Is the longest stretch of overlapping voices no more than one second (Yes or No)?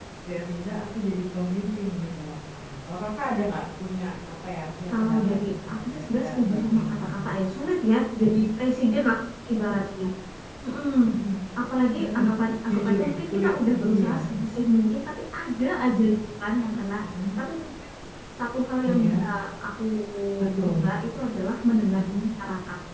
No